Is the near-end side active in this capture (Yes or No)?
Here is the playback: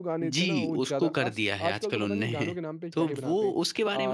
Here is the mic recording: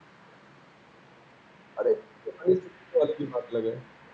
Yes